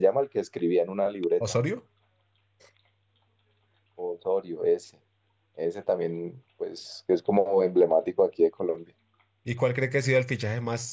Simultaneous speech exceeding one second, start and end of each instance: none

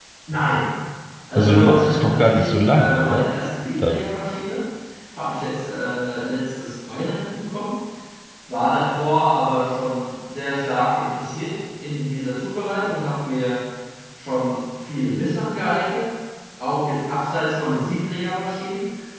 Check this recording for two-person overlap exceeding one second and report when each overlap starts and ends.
1.4-3.3

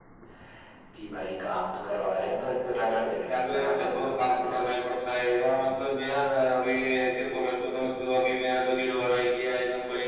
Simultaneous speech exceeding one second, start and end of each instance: 3.3-4.7

